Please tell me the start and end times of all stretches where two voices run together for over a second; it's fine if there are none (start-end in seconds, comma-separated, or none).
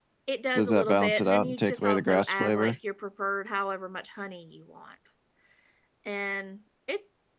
0.5-2.8